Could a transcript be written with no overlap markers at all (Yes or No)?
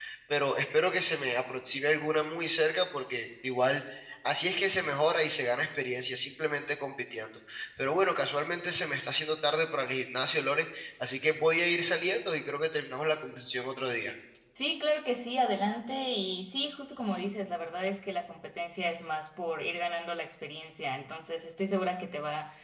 Yes